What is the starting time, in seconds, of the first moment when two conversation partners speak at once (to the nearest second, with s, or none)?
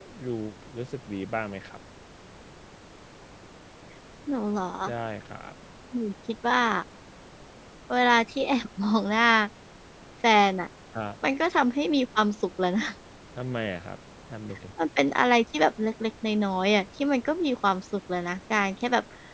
none